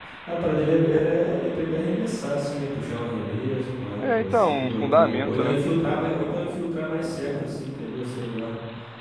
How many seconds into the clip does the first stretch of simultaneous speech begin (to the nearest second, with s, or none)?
4 s